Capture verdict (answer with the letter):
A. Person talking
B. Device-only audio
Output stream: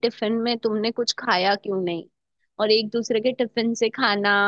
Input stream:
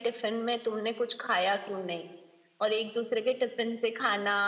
B